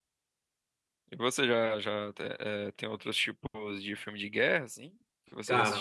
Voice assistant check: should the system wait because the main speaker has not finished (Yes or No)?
No